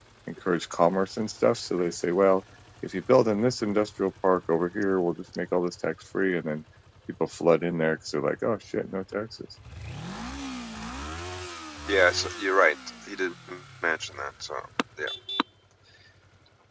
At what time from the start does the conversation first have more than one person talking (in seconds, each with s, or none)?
none